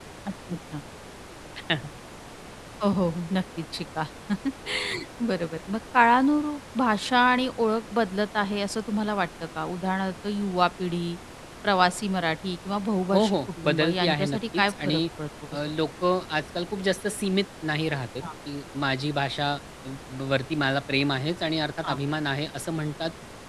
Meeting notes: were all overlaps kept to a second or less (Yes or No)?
No